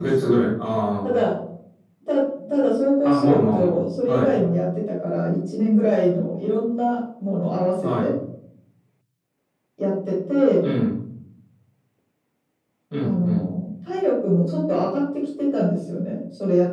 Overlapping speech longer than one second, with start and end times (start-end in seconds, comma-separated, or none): 3.0-4.3